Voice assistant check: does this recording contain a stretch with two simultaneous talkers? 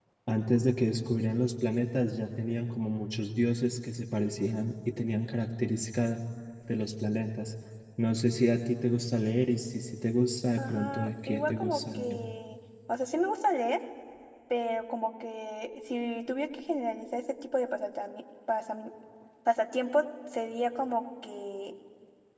Yes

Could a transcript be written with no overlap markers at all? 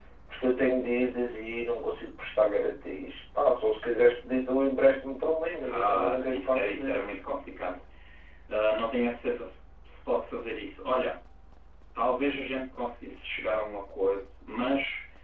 No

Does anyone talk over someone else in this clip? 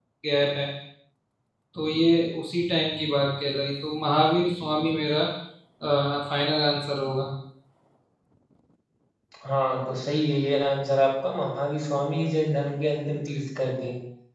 No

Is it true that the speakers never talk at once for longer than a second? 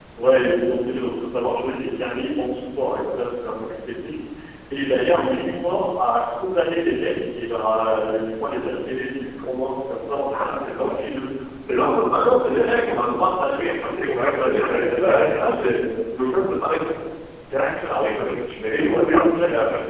No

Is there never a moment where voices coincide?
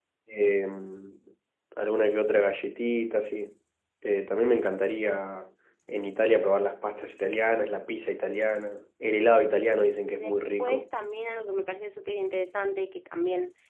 No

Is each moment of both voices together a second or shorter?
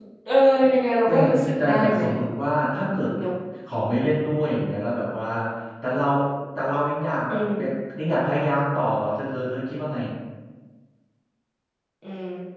Yes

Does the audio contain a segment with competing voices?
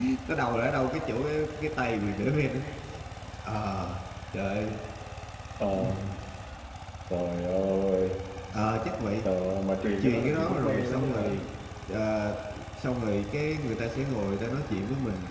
Yes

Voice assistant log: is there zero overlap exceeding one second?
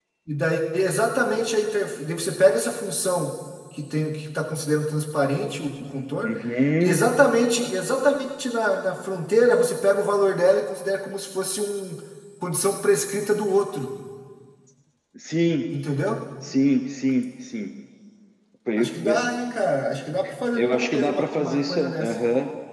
No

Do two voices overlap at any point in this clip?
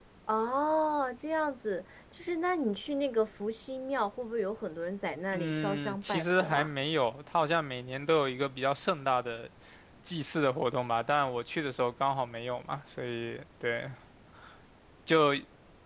Yes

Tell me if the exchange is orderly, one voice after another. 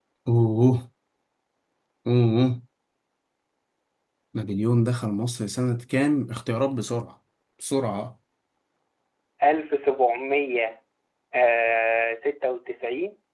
Yes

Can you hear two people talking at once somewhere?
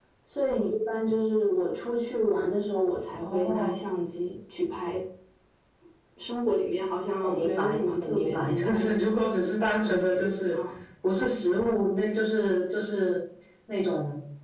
Yes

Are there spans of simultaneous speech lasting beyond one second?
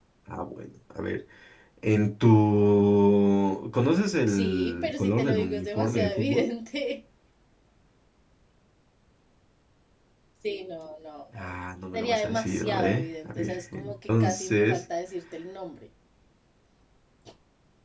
Yes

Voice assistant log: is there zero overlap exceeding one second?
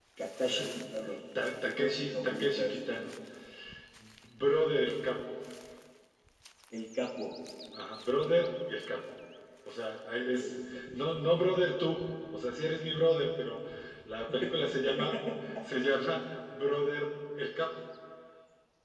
No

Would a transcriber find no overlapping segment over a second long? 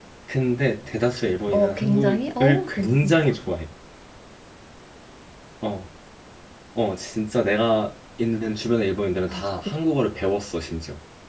No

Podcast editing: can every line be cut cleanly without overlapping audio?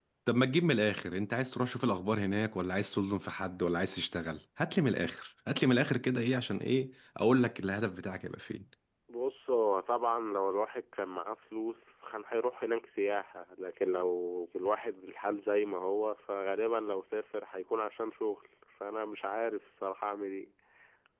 Yes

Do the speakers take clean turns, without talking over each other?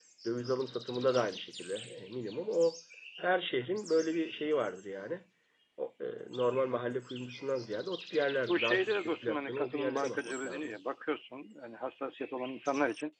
No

